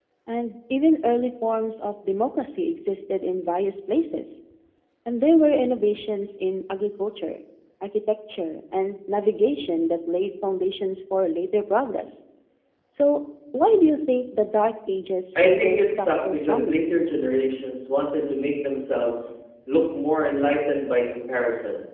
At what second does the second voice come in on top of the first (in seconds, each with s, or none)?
15.3 s